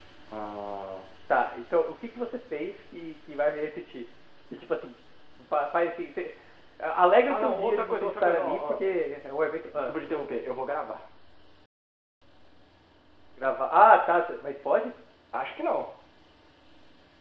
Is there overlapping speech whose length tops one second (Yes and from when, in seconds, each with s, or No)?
Yes, from 7.3 s